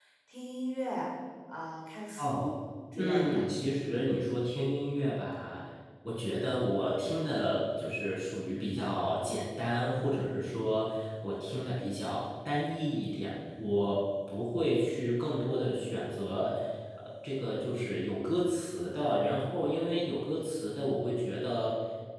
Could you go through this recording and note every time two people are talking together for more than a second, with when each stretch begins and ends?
none

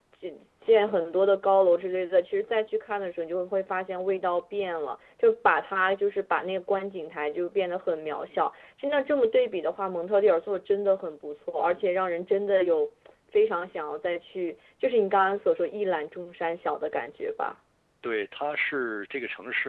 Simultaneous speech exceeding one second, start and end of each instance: none

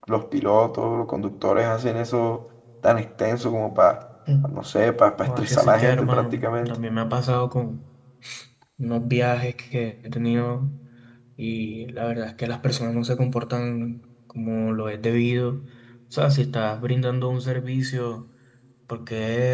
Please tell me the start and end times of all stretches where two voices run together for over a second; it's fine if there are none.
5.2-6.8

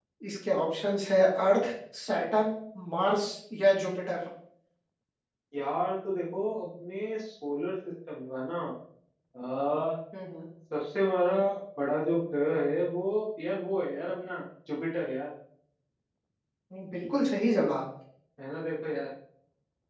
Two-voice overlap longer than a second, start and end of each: none

